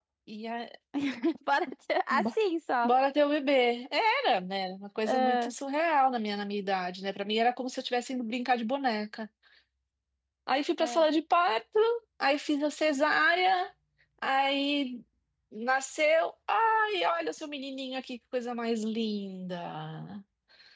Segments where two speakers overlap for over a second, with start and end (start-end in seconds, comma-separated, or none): none